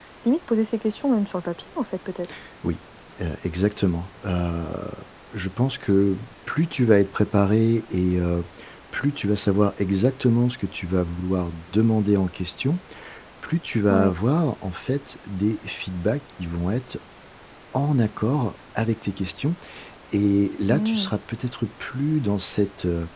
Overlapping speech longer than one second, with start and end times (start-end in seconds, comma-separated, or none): none